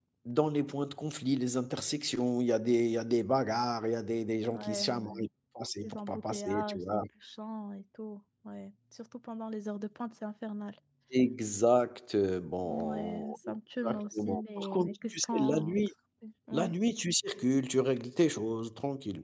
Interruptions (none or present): present